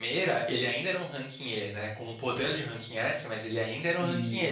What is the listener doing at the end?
listening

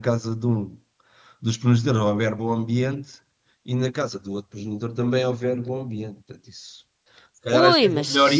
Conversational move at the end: listening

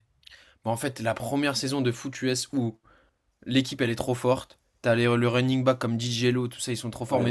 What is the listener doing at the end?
listening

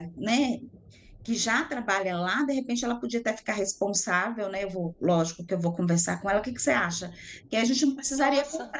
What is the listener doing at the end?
listening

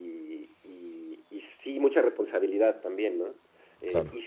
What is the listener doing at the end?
listening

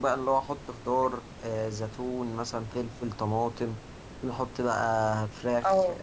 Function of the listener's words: listening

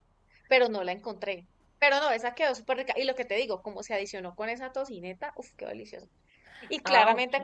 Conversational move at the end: listening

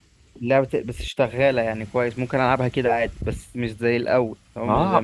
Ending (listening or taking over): taking over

